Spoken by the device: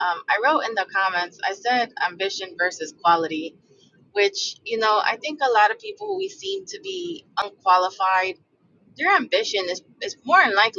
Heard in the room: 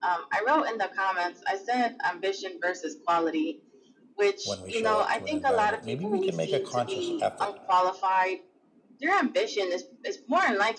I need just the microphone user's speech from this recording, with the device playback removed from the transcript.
when we show up to an environment, maybe we can make a conscious effort

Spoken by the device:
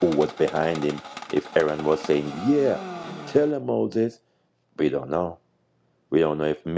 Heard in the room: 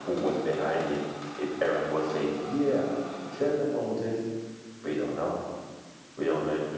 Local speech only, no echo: none

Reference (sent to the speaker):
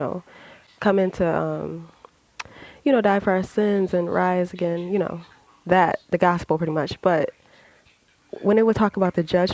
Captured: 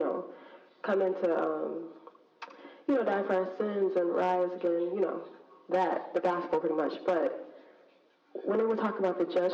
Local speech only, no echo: none

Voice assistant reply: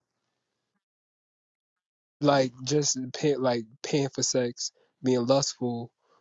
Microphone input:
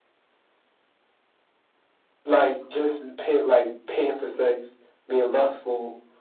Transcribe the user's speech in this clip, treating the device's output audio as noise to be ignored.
none

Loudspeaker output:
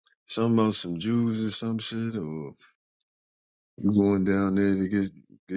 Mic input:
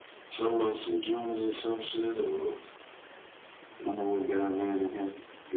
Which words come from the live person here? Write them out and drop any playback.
none

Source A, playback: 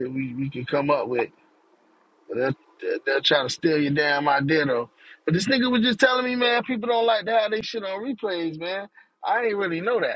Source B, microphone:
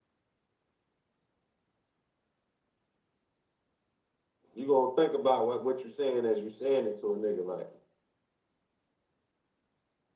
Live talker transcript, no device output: You gonna think about what what you saying as you saying it to a nigga. Like,

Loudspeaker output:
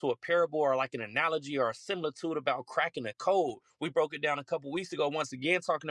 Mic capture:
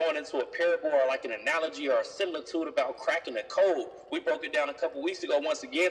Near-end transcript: none

